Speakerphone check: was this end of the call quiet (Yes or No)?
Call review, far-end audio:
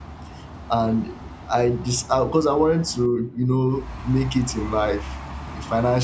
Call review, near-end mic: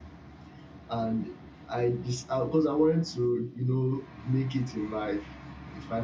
Yes